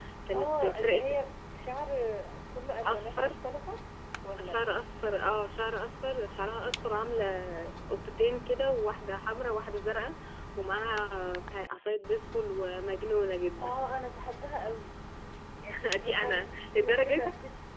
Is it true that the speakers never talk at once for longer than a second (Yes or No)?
No